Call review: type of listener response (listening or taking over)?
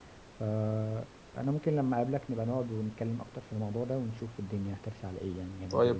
taking over